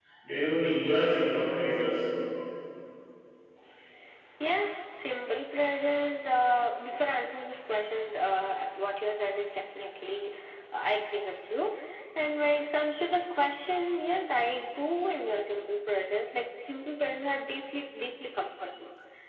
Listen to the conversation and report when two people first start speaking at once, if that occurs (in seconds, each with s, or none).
none